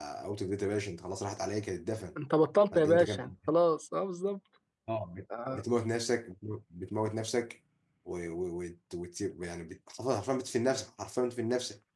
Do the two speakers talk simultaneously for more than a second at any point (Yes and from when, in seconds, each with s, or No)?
No